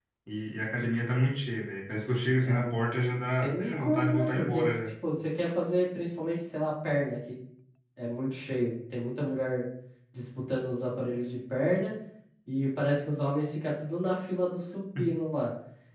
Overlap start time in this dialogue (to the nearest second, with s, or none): 2 s